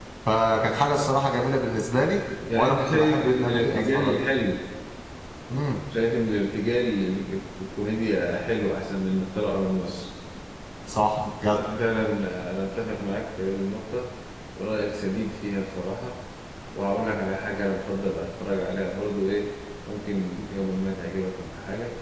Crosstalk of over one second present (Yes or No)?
Yes